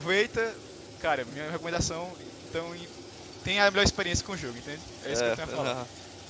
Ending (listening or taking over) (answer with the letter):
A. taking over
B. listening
A